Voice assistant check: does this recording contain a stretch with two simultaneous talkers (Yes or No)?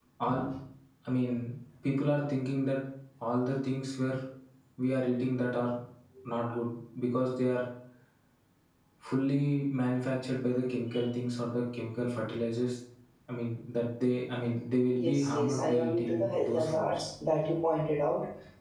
Yes